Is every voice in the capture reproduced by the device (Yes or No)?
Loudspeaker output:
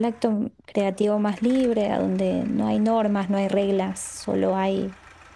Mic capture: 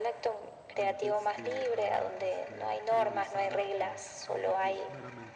No